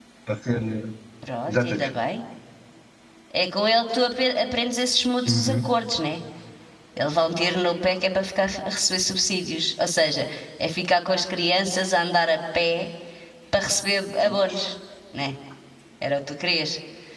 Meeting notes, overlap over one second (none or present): none